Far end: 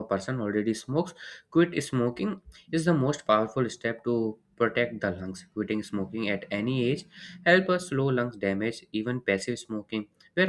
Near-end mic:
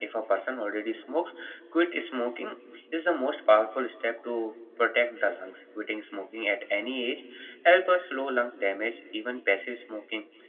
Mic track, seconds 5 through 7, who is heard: echo only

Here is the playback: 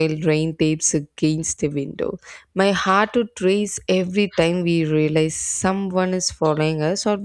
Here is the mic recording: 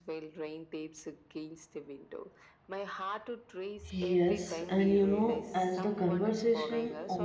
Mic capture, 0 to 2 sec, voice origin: echo only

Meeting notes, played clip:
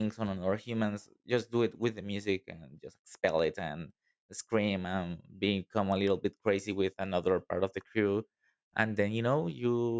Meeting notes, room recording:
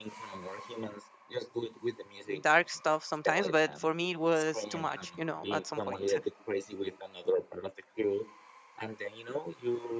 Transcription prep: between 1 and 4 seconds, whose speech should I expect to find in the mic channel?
both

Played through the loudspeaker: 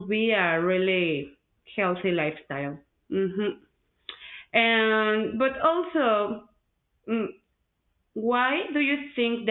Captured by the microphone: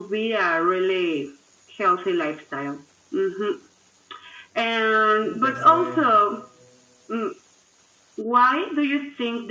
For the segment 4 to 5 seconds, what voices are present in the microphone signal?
echo only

